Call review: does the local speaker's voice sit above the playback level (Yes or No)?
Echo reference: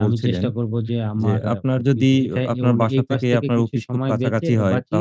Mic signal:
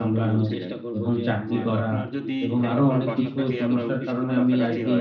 Yes